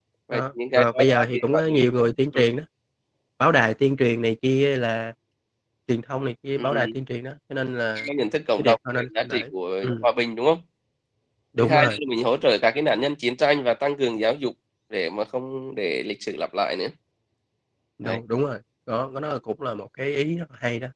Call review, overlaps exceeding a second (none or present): present